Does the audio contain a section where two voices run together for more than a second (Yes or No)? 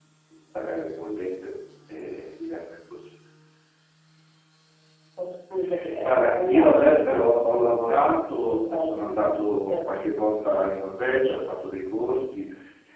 Yes